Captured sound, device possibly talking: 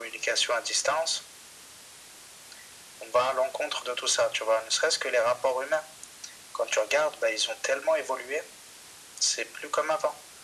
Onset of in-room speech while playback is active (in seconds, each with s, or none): none